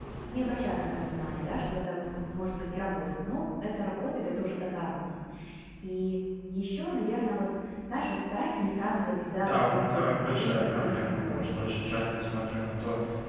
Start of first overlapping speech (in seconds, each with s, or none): 9.4 s